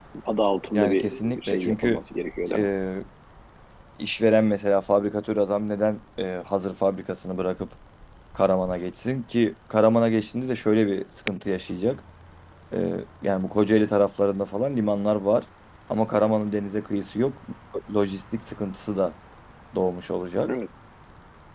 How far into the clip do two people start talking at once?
1 s

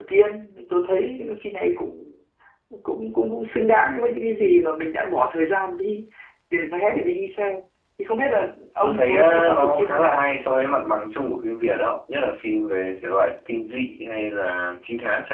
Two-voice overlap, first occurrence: 9 s

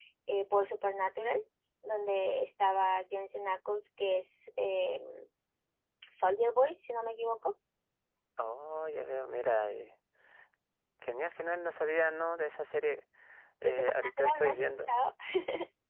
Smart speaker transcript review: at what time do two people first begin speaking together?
14 s

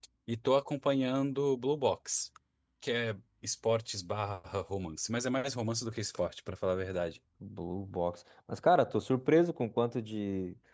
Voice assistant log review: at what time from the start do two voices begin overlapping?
none

